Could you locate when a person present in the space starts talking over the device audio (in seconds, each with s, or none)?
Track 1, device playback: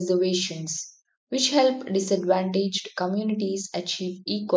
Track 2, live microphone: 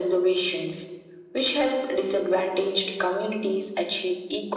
none